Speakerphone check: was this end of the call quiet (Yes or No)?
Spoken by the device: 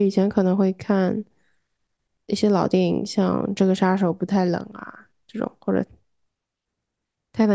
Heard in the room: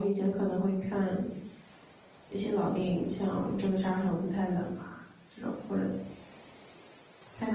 Yes